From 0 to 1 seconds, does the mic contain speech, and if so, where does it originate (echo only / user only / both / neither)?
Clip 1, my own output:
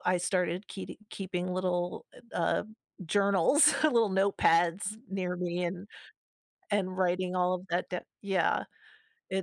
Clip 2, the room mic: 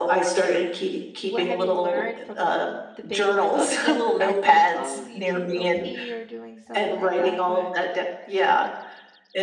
echo only